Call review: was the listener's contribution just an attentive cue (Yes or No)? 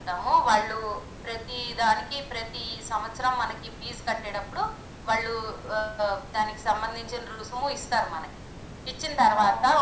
Yes